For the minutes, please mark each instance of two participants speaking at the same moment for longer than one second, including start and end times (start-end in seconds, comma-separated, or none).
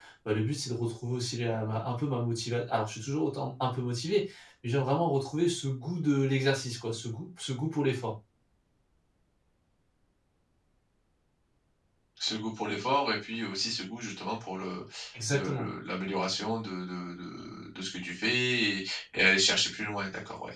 none